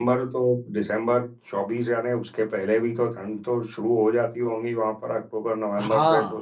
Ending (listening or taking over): taking over